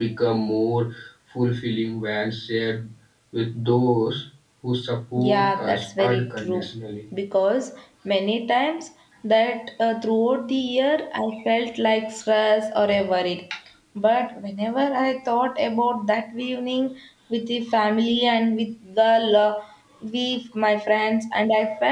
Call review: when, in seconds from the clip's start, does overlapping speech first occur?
5.2 s

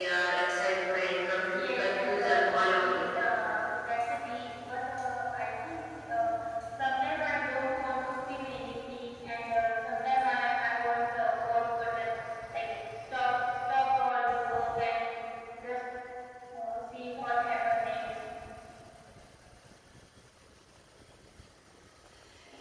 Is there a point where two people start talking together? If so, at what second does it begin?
1.5 s

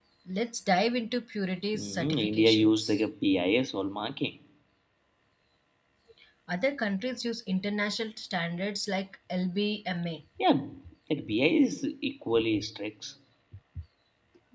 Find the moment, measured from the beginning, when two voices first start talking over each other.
1.7 s

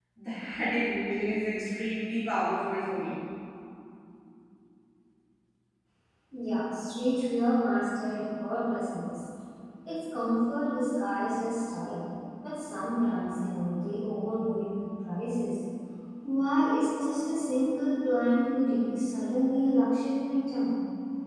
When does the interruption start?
none

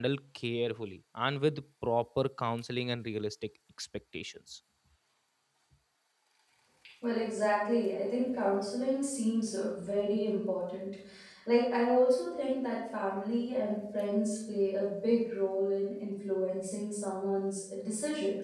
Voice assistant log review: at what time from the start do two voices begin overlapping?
none

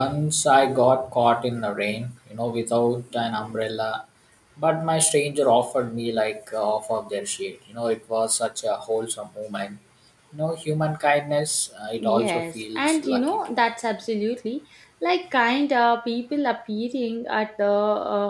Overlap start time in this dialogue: 12.0 s

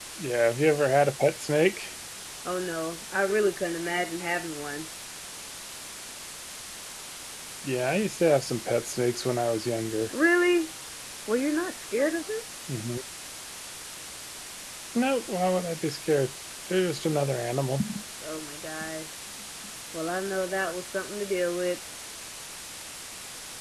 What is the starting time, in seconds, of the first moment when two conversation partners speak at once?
none

